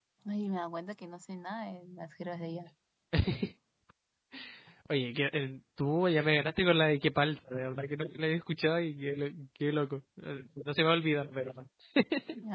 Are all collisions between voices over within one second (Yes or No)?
Yes